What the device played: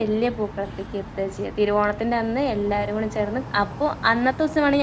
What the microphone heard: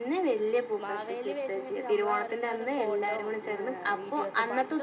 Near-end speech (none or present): present